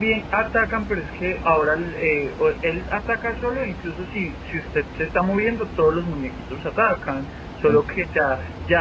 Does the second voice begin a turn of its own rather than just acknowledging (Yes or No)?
No